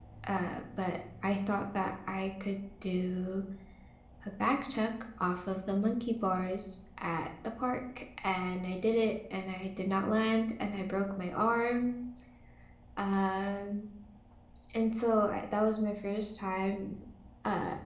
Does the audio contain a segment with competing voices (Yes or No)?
No